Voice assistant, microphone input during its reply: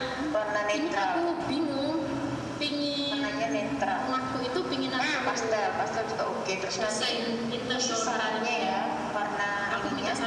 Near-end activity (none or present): none